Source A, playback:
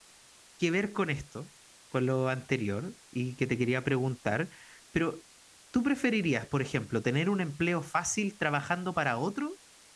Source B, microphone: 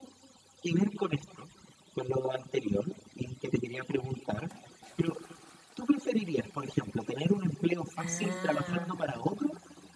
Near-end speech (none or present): present